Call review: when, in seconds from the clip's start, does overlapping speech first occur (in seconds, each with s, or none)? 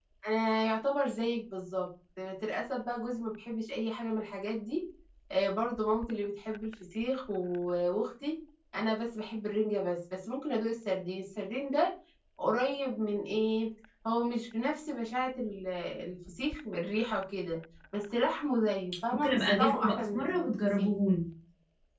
19.1 s